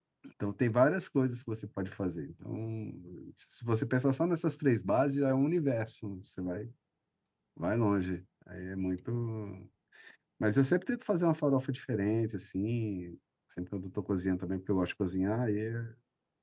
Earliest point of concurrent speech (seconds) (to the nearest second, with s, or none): none